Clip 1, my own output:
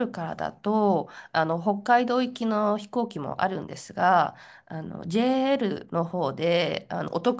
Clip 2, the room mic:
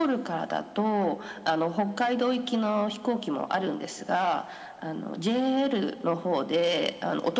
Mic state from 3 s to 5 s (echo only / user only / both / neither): echo only